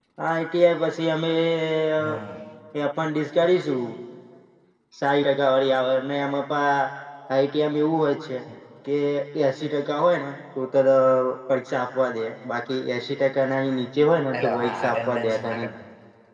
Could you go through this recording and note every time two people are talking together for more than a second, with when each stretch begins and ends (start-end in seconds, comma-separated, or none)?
14.4-15.7